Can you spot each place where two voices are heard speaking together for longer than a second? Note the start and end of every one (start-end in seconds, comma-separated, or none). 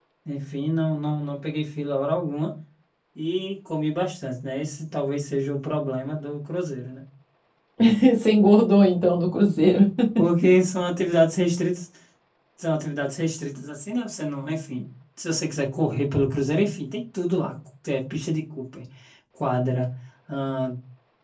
none